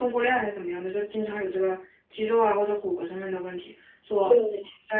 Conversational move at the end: listening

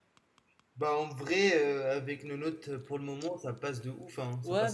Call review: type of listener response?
taking over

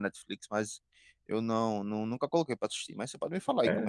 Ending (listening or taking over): taking over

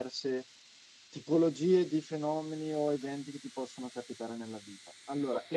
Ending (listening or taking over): listening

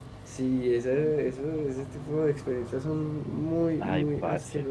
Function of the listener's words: taking over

